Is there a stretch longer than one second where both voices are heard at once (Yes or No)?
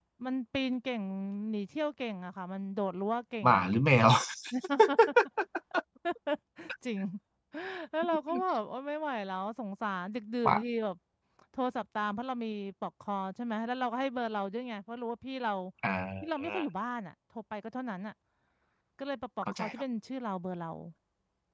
No